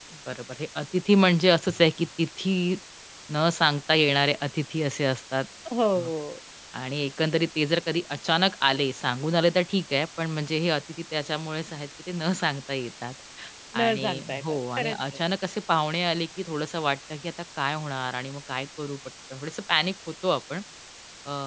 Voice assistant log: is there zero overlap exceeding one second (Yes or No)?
No